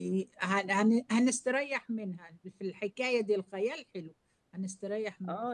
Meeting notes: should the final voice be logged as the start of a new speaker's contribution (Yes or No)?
Yes